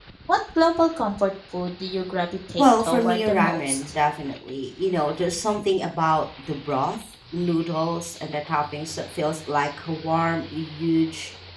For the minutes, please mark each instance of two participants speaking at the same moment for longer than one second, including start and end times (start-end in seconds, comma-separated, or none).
2.6-3.9